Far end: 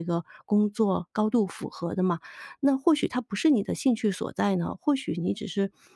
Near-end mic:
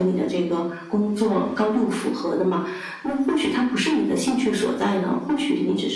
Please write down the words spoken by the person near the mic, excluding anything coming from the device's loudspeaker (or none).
none